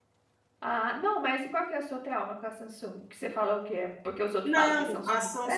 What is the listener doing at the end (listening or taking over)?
taking over